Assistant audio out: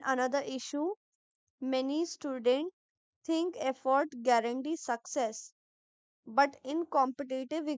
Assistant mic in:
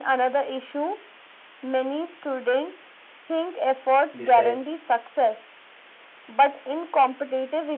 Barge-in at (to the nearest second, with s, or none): 4 s